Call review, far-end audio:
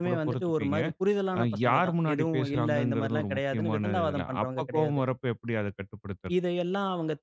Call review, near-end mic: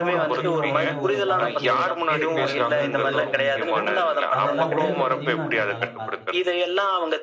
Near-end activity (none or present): present